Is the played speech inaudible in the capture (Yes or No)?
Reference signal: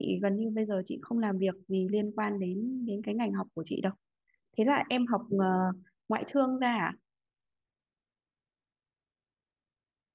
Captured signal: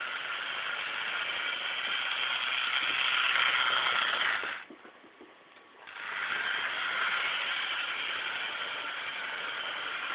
Yes